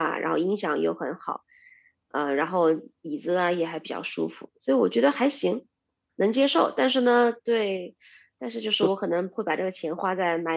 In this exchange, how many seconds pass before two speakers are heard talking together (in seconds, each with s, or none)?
none